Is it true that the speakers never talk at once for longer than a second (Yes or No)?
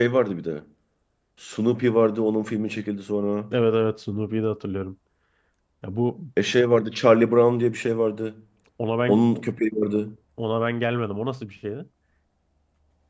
Yes